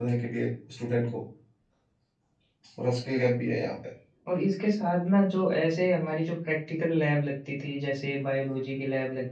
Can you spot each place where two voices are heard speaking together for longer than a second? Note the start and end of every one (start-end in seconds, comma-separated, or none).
none